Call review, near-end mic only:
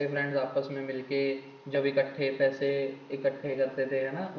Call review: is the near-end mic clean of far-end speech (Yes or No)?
Yes